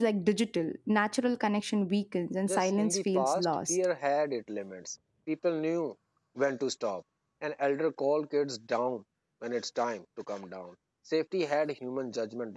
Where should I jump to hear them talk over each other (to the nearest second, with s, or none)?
2 s